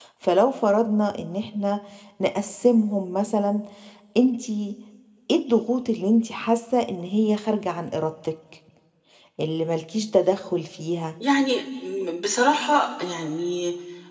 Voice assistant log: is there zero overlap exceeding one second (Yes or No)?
Yes